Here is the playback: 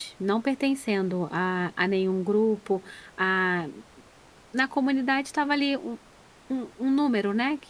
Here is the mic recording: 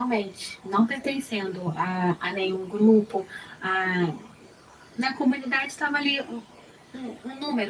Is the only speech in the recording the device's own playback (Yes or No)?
Yes